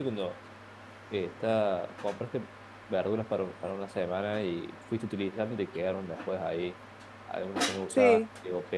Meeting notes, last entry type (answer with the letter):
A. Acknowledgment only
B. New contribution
A